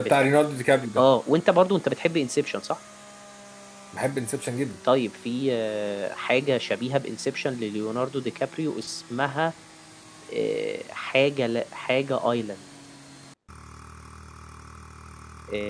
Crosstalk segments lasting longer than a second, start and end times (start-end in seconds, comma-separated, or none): none